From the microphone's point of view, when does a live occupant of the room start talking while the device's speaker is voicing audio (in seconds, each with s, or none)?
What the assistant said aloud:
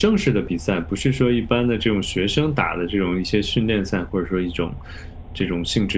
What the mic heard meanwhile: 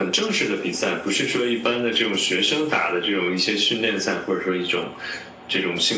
none